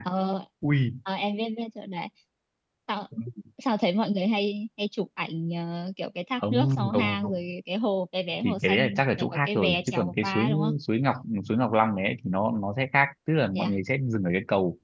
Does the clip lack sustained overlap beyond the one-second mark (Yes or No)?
No